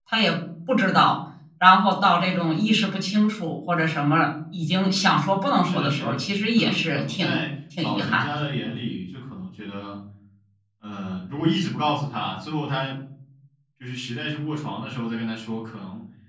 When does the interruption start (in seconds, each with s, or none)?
5.6 s